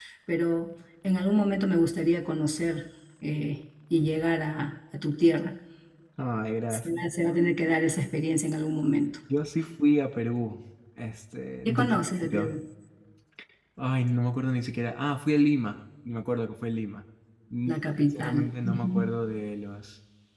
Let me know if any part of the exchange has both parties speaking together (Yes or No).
Yes